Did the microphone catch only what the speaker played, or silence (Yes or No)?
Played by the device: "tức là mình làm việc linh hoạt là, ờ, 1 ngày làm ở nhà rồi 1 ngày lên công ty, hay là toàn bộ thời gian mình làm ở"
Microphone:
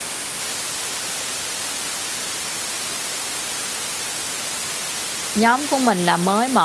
No